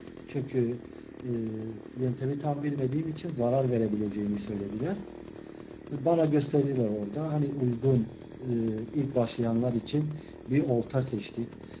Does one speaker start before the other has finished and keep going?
No

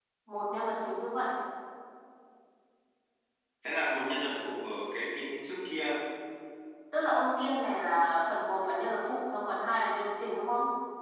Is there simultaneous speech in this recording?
No

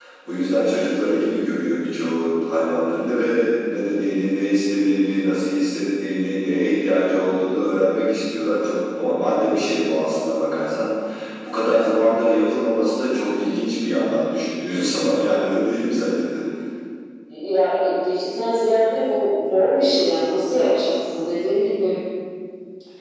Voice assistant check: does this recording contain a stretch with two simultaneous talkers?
No

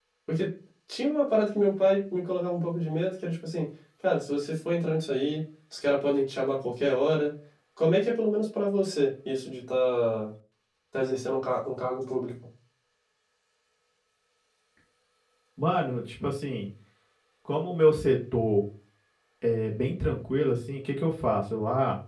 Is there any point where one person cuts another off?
No

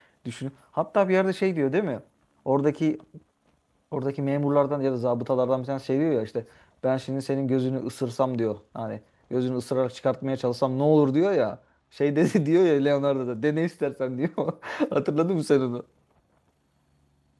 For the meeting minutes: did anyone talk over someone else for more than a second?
No

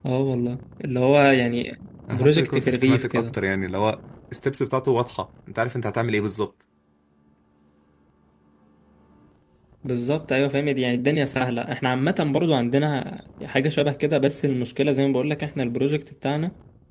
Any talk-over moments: Yes, from 2.1 s

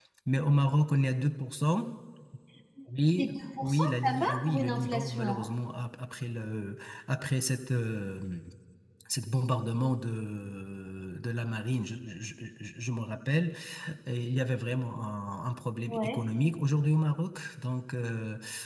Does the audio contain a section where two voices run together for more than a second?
Yes, from 3.2 s

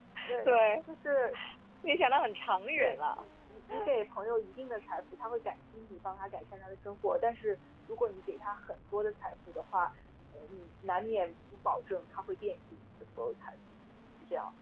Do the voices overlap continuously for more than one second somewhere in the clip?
No

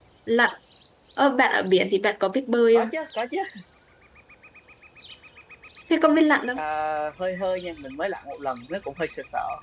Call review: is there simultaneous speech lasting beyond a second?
No

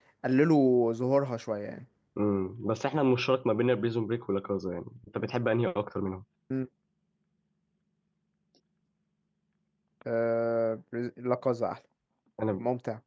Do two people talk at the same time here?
No

